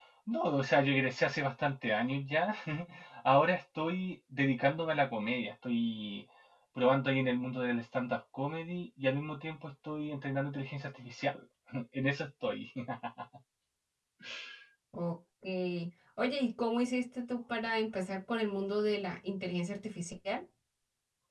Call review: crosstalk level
none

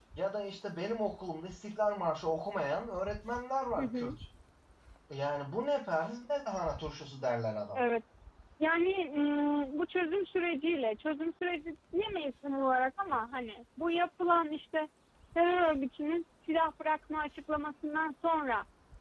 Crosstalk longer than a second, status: none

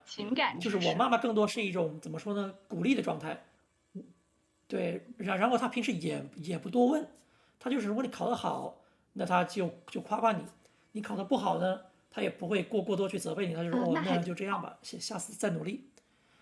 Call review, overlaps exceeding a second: none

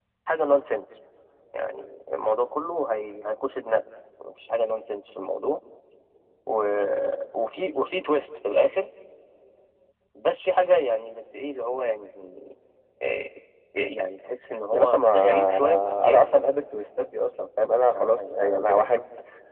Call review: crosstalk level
present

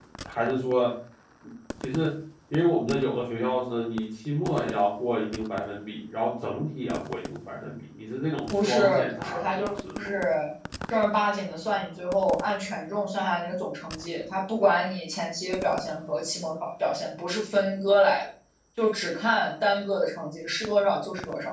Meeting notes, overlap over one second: present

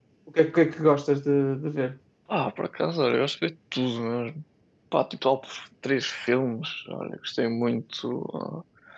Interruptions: none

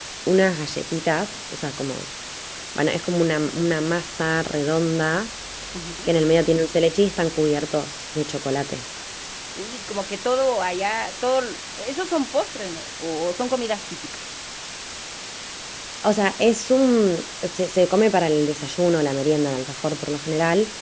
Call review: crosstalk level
none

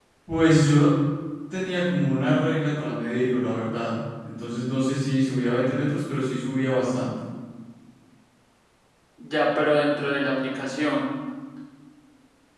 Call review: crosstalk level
none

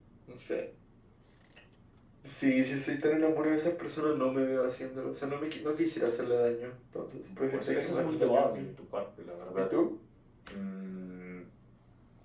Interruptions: present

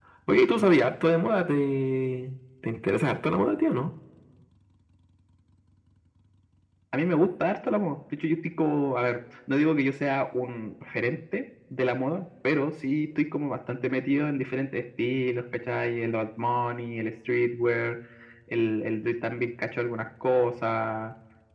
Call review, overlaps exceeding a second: none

